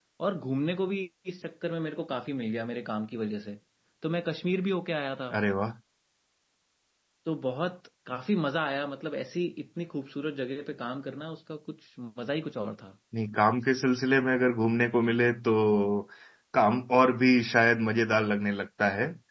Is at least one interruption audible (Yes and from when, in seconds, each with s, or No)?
No